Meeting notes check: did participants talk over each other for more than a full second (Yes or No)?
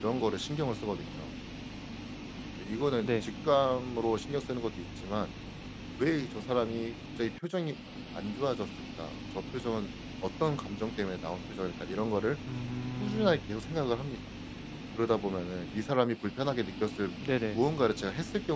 No